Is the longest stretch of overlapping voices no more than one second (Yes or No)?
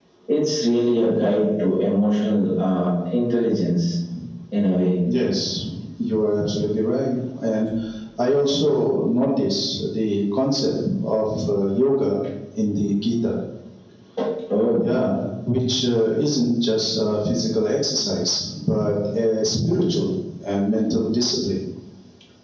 Yes